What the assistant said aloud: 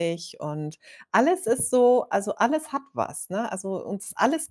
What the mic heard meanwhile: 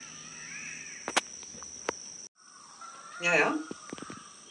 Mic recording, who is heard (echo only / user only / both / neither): user only